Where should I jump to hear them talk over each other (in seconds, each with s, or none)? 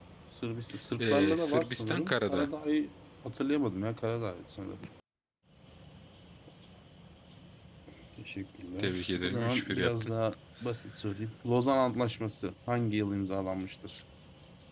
1.0 s